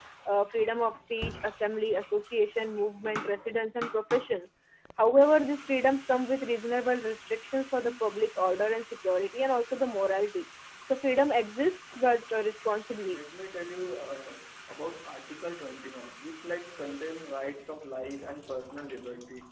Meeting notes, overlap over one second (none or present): none